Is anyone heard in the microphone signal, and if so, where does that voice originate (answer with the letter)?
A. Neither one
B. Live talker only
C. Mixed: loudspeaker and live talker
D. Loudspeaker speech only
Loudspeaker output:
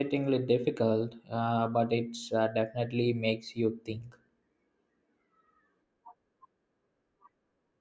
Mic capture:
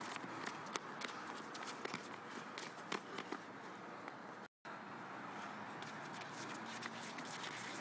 A